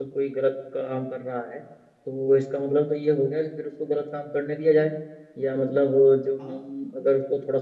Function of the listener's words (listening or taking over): listening